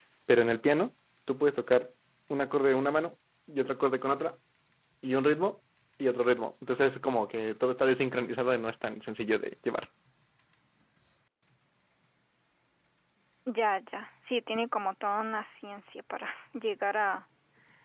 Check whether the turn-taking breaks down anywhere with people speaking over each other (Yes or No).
No